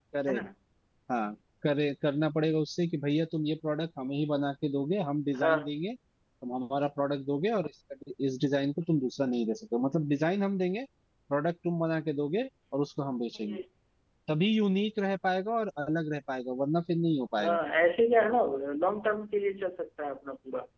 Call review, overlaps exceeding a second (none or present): none